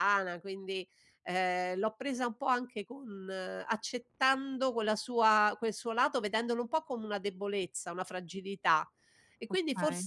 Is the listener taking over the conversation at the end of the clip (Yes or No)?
No